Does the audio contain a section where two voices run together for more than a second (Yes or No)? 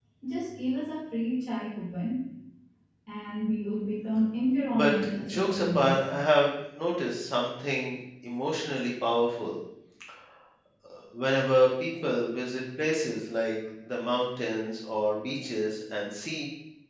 Yes